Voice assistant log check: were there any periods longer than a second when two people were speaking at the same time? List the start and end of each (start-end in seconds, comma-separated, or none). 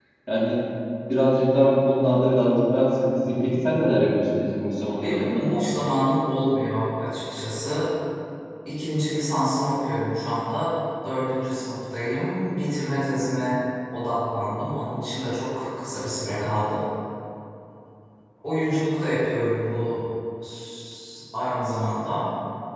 none